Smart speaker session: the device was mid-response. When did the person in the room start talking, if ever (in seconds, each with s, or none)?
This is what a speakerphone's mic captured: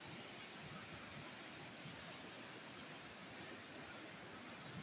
none